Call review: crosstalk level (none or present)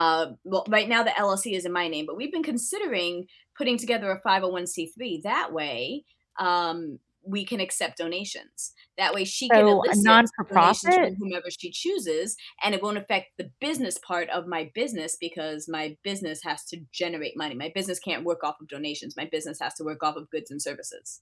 present